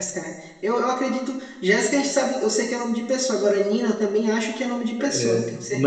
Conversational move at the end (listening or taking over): taking over